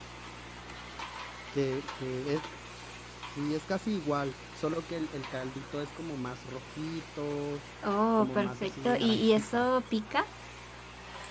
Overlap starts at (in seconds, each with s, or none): 8.2 s